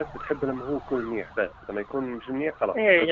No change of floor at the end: No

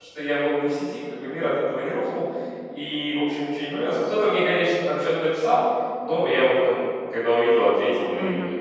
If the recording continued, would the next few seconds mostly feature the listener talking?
Yes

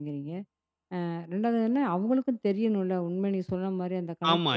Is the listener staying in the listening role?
No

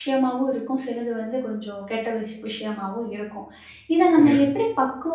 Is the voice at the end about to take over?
No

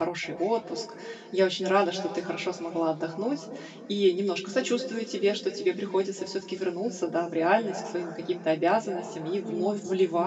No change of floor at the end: Yes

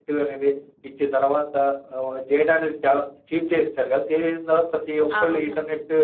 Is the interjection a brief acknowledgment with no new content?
Yes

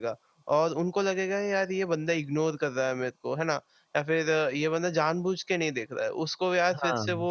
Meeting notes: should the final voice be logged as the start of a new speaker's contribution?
No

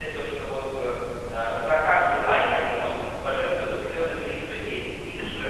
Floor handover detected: No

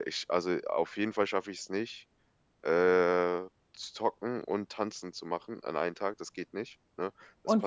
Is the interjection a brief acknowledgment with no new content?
No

